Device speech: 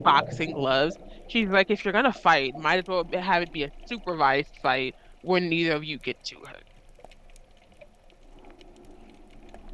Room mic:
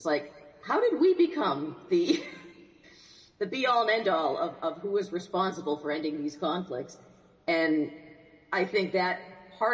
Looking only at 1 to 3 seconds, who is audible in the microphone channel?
user only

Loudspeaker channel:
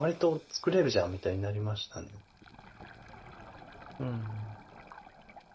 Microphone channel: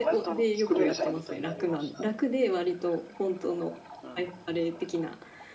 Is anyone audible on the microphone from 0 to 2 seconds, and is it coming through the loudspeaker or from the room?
both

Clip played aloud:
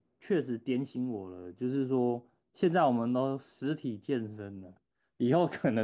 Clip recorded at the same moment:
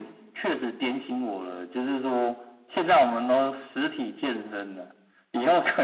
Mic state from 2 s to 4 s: echo only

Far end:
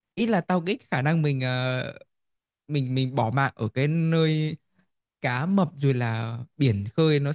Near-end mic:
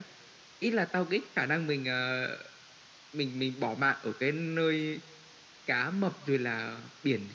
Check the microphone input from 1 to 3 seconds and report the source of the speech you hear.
echo only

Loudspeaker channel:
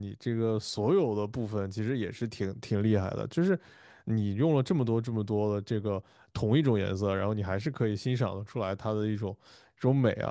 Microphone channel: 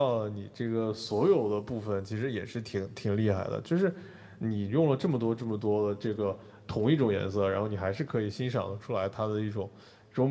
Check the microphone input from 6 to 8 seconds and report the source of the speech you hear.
echo only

